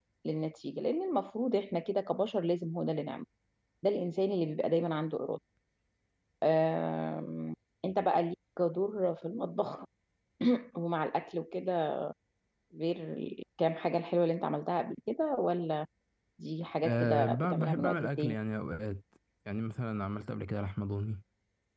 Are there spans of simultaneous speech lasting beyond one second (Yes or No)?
Yes